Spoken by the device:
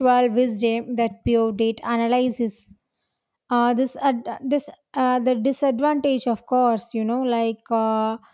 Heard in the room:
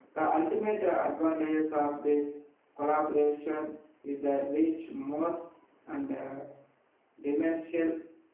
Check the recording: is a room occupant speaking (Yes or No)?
Yes